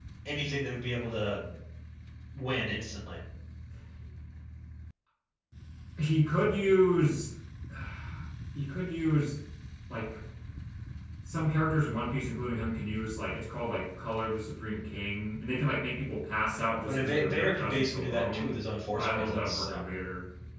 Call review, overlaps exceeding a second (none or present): present